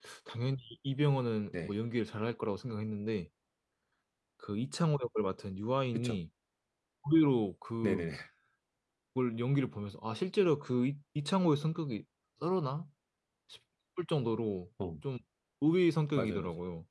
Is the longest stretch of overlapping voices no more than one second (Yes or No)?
Yes